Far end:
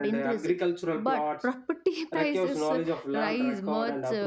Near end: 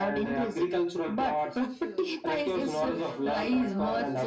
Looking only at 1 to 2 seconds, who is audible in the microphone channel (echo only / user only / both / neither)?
both